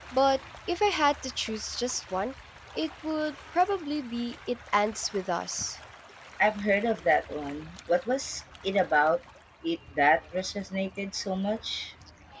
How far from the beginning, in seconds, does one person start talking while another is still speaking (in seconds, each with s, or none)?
none